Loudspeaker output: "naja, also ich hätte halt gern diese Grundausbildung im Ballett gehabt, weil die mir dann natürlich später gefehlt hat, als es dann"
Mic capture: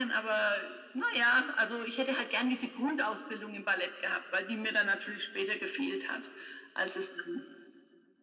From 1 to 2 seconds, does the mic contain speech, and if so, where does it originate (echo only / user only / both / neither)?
echo only